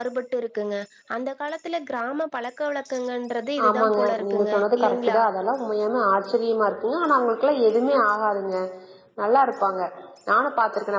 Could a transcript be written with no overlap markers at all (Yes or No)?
No